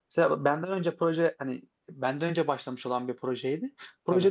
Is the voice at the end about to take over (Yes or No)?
No